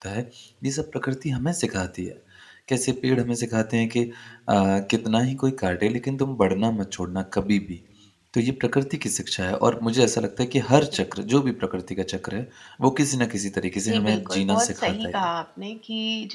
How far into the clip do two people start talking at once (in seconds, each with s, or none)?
13.9 s